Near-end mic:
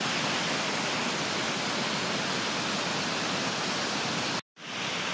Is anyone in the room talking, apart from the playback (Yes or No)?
No